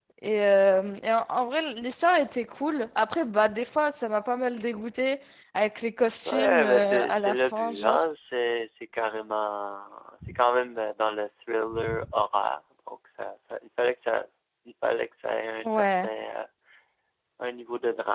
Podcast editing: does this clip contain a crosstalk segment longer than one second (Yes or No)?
Yes